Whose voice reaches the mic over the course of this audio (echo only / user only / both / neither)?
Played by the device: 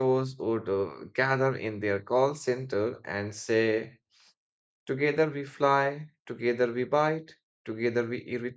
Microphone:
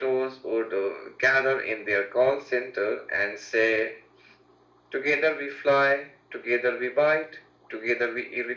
echo only